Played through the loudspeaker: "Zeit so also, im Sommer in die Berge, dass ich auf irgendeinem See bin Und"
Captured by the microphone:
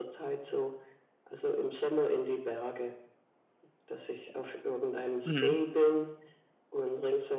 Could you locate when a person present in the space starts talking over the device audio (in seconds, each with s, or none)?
5.2 s